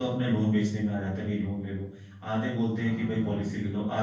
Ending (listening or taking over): listening